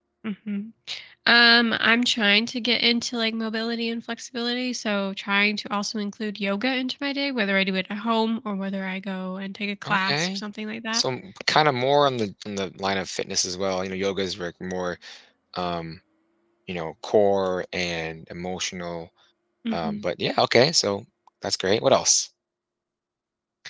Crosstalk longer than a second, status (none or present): none